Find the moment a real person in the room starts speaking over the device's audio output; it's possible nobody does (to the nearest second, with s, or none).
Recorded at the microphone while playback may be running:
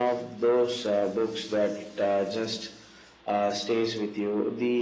none